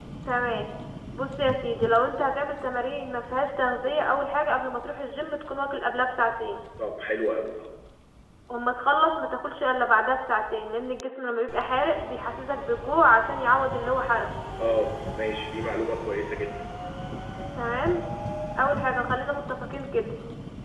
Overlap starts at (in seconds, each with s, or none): none